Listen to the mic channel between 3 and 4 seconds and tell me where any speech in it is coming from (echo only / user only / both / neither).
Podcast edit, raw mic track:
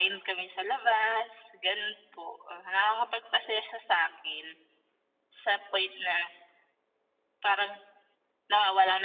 echo only